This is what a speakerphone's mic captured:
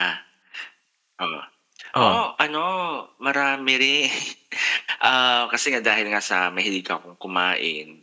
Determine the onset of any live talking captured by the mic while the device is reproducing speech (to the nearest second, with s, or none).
2 s